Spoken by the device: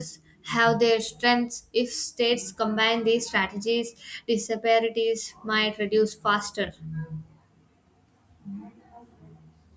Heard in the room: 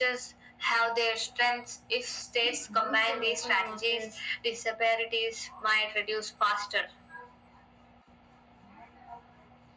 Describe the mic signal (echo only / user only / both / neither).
both